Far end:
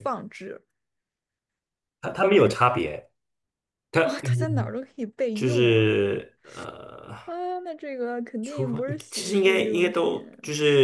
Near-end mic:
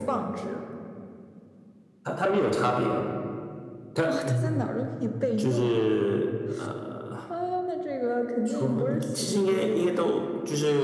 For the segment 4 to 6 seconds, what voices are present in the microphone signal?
echo only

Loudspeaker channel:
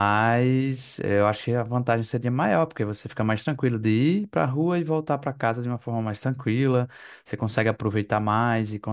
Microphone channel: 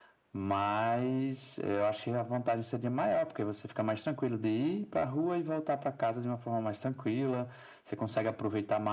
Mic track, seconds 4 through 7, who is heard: echo only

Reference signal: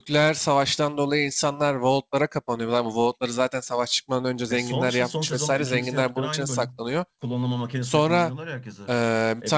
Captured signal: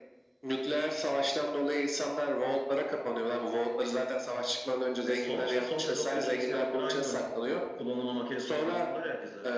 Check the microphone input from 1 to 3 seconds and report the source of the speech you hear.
echo only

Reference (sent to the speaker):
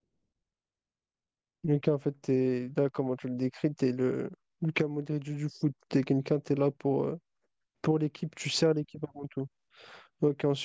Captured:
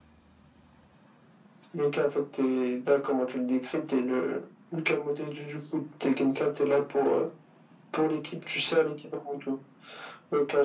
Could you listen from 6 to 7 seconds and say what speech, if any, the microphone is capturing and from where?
echo only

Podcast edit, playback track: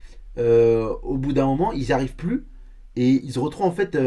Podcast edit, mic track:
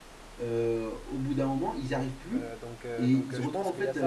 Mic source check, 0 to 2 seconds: echo only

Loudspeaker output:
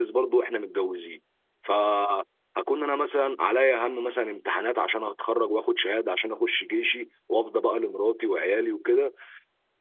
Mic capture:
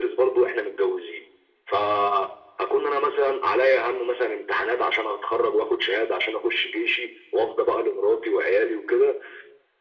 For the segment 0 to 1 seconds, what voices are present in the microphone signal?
echo only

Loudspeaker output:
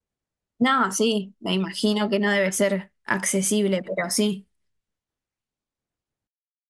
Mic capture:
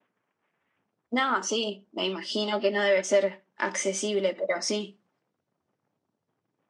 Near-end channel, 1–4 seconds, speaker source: echo only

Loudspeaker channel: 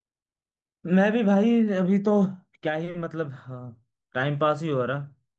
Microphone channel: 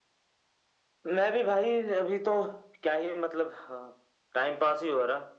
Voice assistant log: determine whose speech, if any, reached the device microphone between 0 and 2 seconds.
echo only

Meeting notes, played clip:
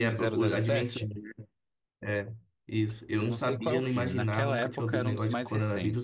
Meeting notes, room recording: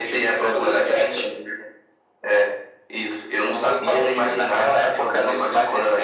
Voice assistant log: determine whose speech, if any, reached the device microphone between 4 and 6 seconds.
echo only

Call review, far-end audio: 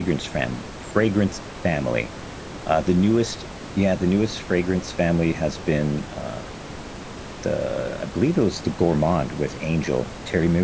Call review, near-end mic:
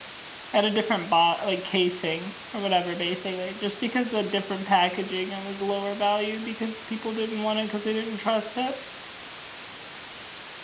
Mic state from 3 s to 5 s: user only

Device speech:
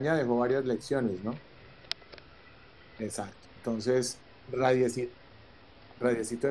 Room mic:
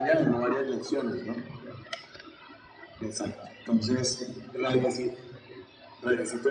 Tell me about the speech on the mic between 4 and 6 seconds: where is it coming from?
echo only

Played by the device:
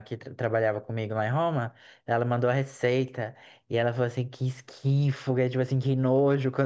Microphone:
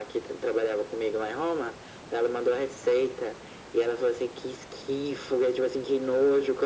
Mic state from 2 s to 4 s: echo only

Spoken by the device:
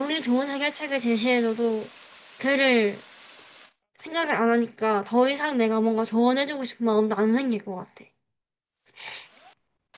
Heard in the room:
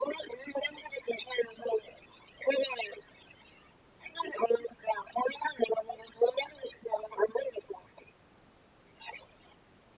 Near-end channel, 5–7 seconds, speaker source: echo only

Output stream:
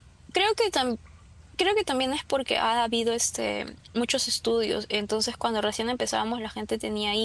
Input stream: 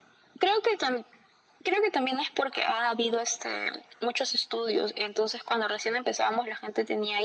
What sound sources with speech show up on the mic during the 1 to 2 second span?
echo only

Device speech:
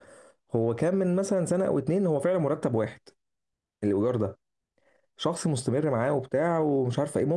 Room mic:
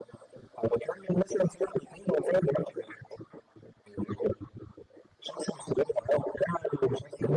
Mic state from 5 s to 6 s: echo only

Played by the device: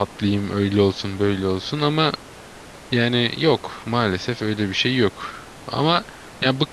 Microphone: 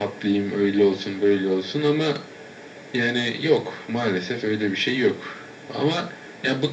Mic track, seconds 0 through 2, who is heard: echo only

